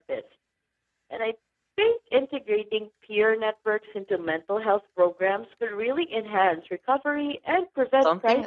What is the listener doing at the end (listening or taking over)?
taking over